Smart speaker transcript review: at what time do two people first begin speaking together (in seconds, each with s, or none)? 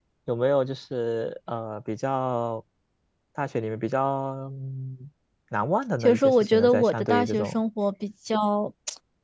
6.0 s